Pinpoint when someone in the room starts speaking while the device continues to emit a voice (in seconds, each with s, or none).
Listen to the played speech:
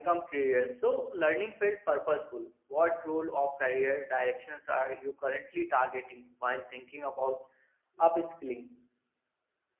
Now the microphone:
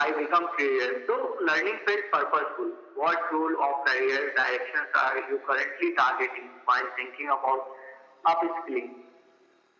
none